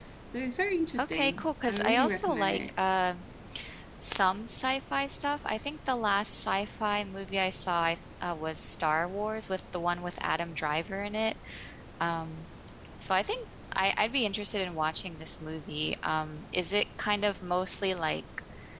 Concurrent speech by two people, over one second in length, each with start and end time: 1.0-2.7

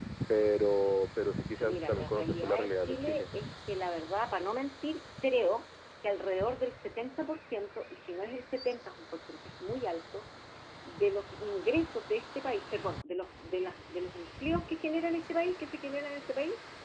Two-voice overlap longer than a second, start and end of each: 1.6-3.3

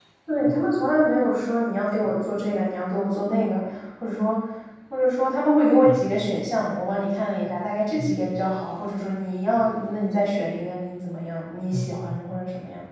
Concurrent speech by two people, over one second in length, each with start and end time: none

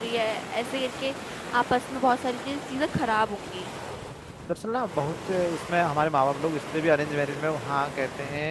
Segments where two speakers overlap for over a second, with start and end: none

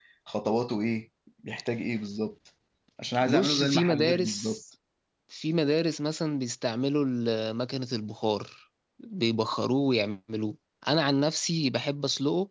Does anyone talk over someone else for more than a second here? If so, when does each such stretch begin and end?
3.2-4.5

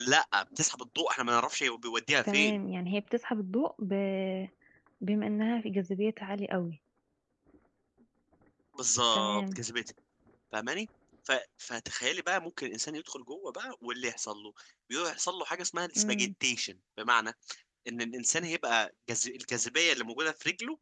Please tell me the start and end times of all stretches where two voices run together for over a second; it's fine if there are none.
none

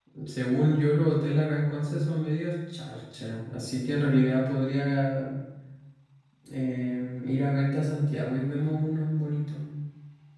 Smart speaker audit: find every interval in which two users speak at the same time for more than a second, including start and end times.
none

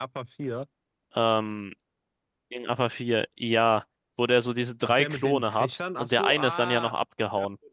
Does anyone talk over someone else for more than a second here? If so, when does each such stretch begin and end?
4.8-6.9

